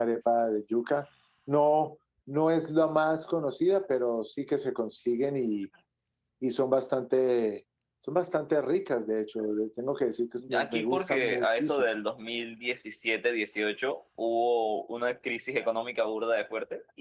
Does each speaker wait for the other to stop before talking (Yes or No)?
No